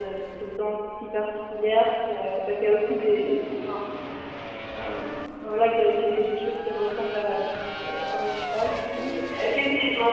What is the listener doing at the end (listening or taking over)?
taking over